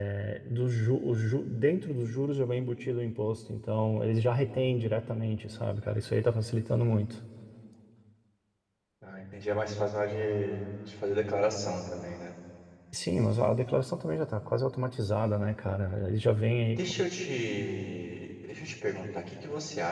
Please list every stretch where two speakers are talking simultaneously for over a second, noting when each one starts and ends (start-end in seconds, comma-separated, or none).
none